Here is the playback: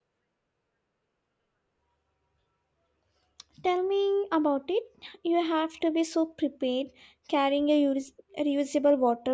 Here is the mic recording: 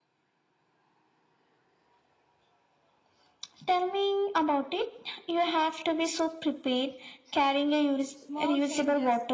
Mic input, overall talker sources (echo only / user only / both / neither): both